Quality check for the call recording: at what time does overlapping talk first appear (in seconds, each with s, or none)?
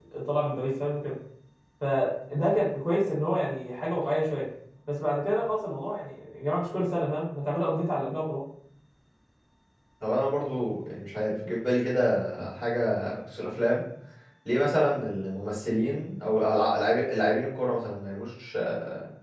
none